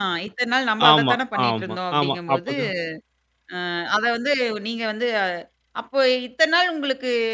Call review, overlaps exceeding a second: present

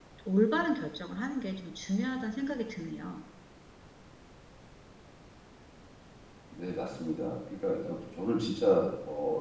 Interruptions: none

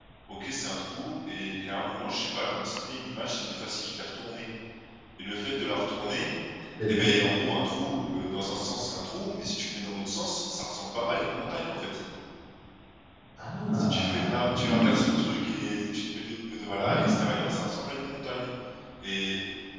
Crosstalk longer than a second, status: present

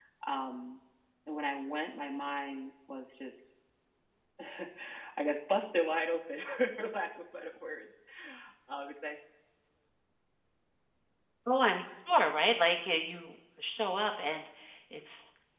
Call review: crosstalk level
none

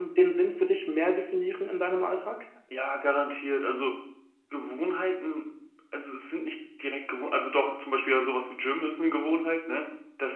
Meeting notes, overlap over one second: none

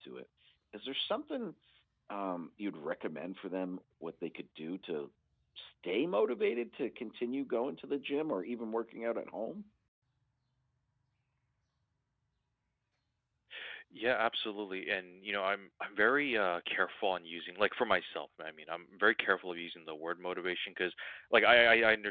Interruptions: none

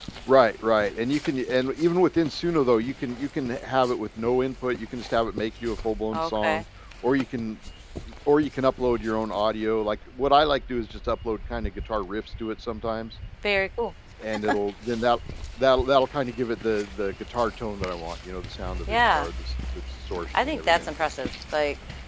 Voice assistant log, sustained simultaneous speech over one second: none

